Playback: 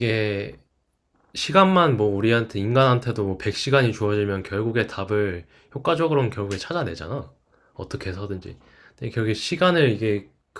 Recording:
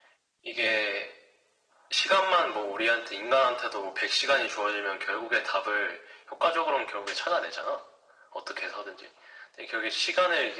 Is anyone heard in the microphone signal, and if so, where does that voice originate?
echo only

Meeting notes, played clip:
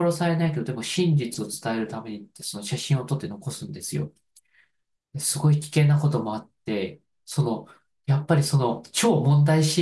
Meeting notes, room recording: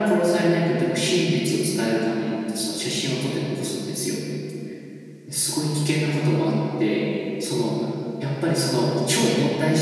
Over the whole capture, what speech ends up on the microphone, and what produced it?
echo only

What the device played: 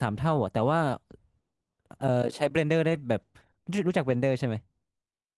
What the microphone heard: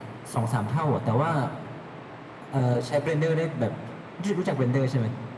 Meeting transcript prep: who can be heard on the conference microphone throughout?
echo only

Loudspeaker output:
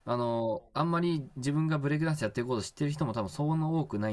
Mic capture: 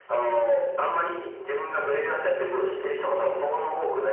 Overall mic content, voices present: both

